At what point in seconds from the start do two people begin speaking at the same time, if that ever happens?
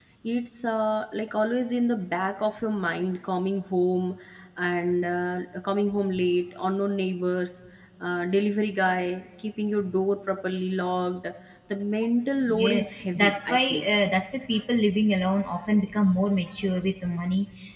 12.5 s

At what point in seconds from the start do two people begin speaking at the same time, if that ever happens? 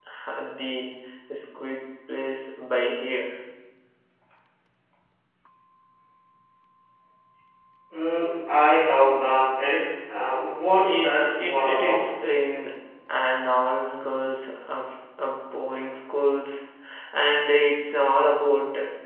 10.7 s

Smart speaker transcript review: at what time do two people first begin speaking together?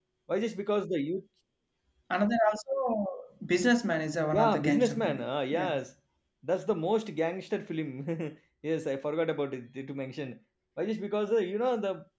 4.3 s

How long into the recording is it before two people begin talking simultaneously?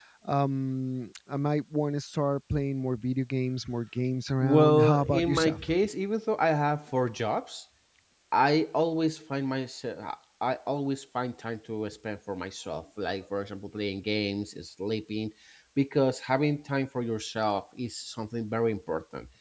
4.4 s

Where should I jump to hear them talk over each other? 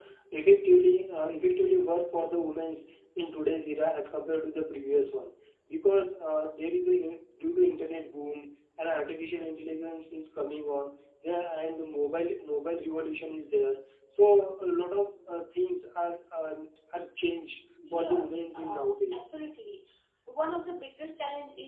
17.8 s

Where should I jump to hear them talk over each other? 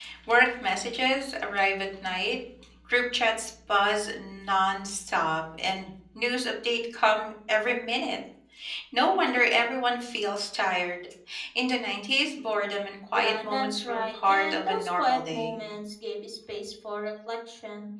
13.1 s

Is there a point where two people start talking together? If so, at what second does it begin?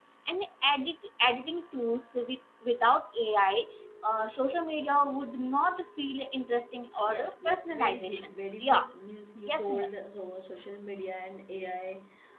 7.1 s

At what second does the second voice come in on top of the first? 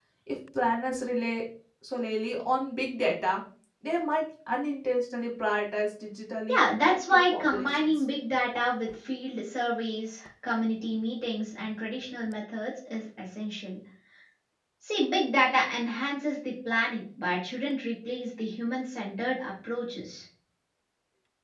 6.5 s

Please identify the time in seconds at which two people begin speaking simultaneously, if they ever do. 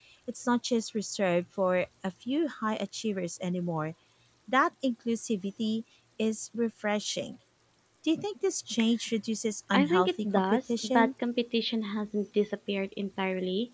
9.7 s

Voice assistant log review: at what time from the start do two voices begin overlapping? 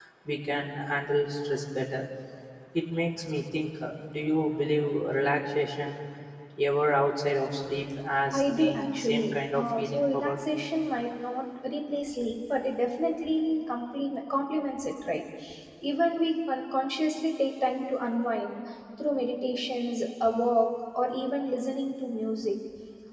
8.3 s

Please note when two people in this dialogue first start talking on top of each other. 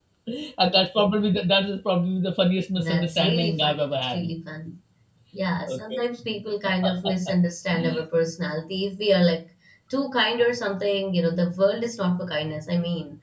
2.8 s

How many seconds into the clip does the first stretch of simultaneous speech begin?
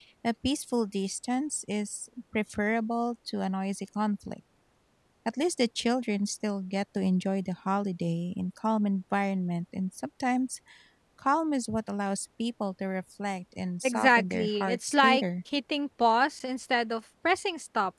13.8 s

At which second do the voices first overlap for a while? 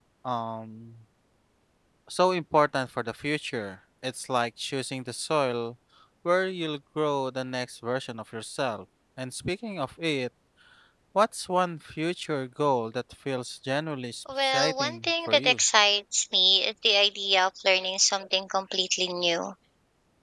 14.3 s

